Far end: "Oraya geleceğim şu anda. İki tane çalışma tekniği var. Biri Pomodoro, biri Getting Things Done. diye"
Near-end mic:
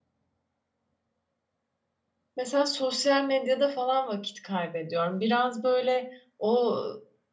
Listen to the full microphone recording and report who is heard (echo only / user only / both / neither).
user only